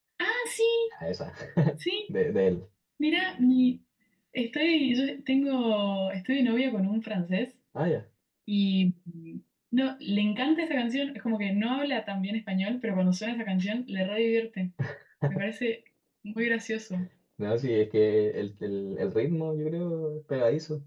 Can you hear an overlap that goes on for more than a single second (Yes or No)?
No